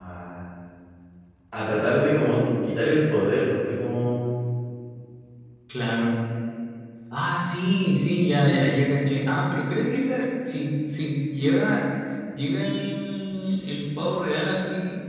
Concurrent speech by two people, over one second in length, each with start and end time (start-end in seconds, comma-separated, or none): none